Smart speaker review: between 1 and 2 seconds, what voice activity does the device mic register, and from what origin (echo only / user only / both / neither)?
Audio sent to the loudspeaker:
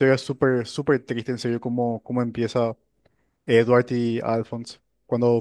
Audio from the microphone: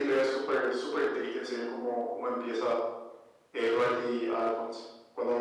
echo only